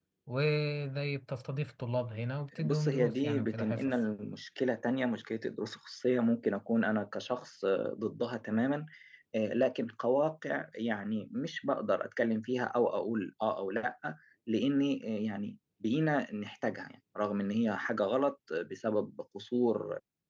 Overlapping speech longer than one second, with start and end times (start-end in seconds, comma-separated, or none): 2.6-4.0